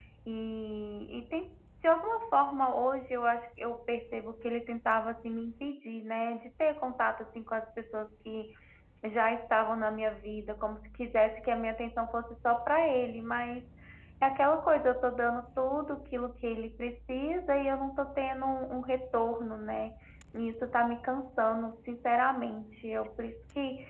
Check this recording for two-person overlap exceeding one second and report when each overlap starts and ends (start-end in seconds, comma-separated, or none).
none